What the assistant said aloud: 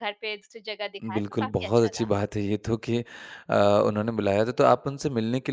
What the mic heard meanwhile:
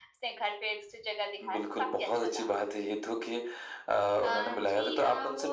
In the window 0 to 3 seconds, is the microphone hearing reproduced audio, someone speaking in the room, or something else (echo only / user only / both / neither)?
echo only